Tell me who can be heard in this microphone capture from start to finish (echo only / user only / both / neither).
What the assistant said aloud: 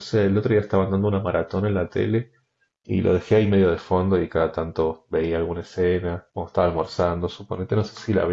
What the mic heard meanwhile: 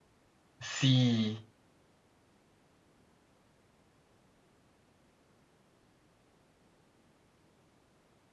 user only